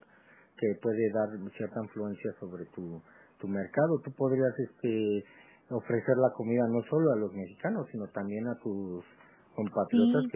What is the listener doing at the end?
taking over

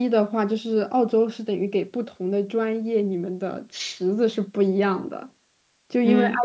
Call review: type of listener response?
listening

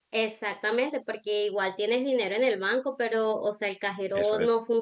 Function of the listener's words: listening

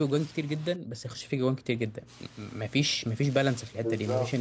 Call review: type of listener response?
listening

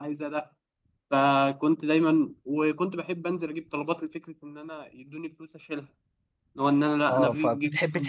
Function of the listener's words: taking over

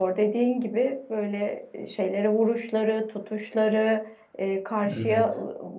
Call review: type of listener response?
listening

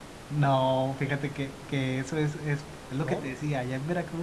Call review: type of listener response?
listening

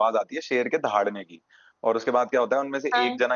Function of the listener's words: listening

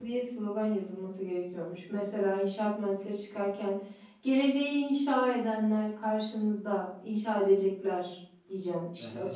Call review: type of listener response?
taking over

